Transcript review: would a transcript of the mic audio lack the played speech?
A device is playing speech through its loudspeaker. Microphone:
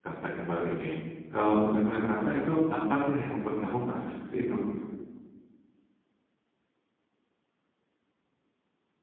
Yes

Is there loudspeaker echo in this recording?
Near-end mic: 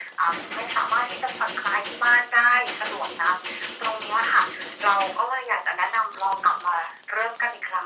Yes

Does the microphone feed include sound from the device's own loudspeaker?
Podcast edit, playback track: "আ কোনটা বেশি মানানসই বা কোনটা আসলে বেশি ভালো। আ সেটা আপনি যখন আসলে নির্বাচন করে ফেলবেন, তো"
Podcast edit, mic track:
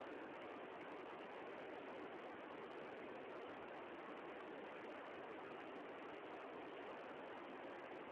No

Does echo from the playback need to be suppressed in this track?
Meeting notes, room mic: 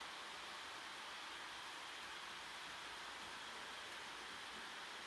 No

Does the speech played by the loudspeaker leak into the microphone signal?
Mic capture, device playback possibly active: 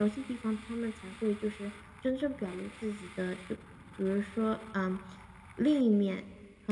No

